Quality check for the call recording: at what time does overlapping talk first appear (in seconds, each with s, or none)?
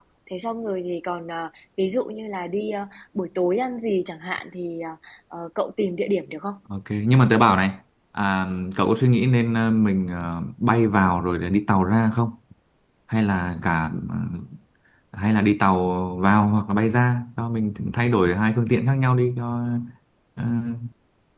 none